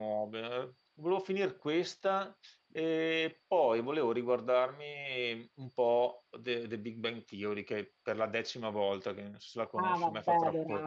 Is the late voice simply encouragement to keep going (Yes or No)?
No